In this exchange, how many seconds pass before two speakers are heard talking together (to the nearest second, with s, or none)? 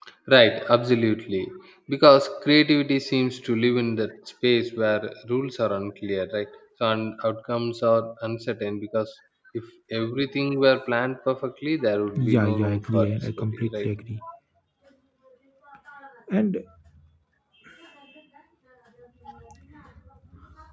12 s